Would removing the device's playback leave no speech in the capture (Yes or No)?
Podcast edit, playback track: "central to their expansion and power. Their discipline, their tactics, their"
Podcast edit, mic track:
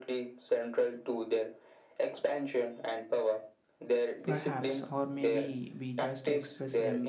No